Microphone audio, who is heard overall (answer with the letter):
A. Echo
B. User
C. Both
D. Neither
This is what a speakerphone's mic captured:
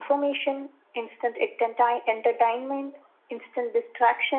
A